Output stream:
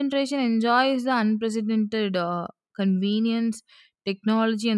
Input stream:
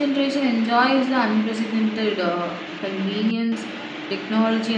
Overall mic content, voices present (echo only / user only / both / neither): echo only